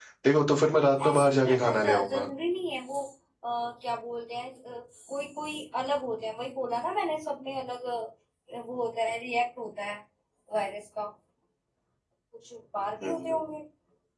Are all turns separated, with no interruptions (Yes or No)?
No